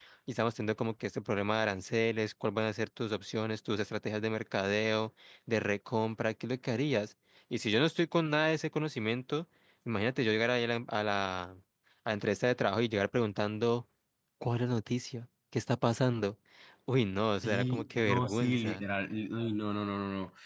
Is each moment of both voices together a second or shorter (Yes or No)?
No